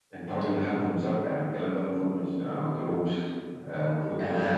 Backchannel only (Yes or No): Yes